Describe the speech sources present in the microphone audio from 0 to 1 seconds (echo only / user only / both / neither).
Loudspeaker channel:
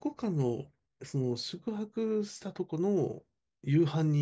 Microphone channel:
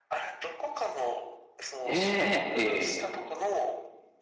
echo only